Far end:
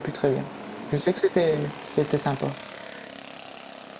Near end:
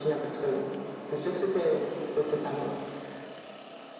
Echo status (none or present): present